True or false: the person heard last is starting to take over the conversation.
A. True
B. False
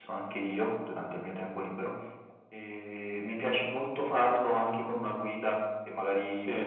B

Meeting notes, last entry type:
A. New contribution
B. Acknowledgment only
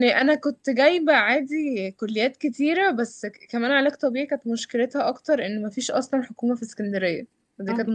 A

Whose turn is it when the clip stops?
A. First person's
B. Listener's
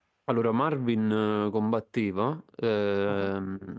A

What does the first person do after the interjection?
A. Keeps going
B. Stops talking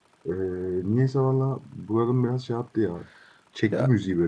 B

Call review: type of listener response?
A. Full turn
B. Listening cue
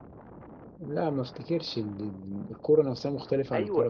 A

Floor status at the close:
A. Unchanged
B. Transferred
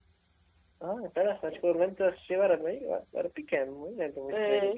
B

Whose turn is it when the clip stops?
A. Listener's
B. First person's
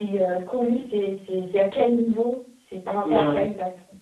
A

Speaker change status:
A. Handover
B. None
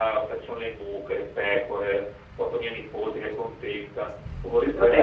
B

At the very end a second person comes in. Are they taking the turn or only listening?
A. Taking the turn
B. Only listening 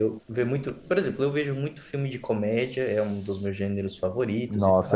A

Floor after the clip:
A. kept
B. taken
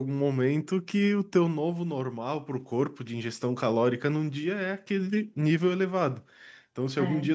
A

